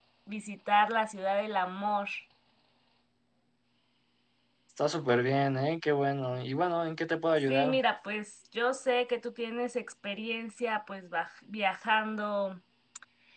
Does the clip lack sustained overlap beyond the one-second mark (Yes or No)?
Yes